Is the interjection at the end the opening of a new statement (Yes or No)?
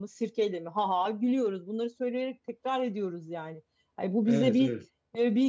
No